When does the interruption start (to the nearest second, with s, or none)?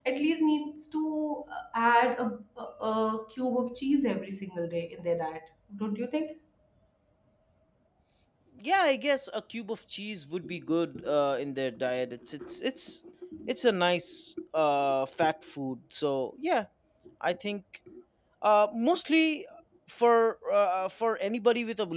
none